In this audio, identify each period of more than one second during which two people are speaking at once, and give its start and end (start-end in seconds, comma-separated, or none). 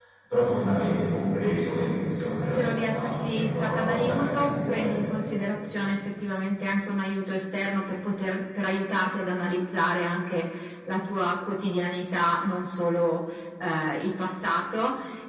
2.5-4.9